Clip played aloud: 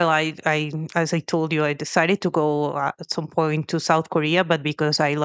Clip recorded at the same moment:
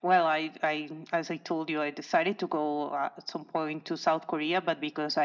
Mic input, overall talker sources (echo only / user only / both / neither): echo only